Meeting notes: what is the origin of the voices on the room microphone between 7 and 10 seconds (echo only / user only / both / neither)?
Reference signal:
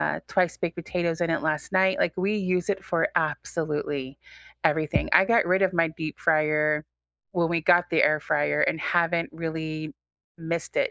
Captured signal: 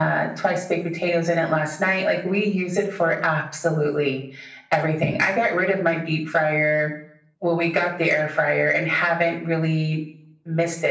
echo only